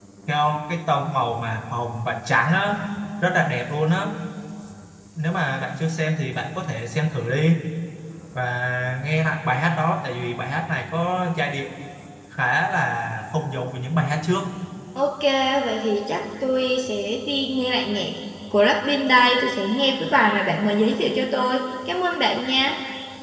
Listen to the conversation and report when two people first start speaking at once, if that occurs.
none

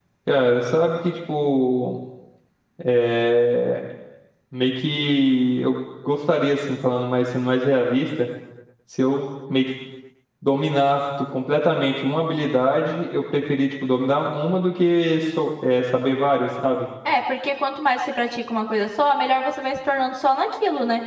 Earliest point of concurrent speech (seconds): none

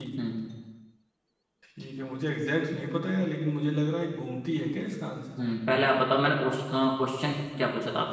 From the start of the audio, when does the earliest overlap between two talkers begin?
none

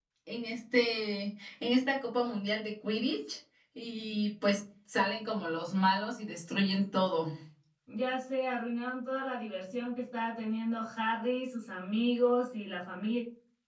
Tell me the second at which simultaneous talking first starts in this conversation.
none

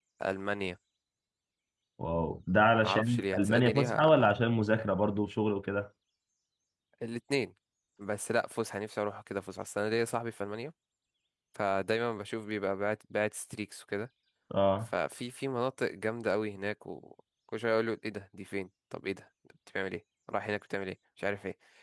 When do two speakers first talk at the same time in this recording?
2.8 s

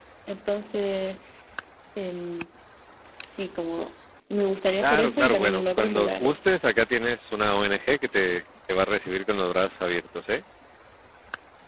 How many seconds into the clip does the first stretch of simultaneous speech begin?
4.8 s

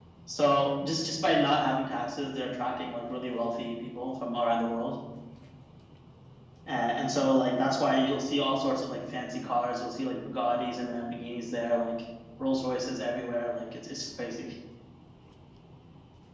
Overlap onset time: none

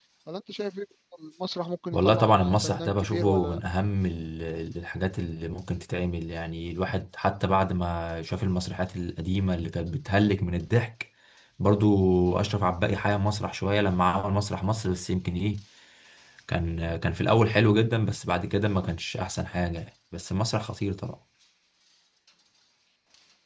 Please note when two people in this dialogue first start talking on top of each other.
1.9 s

